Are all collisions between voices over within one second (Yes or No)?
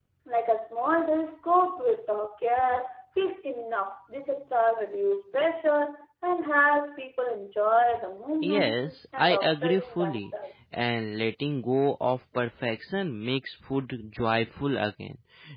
No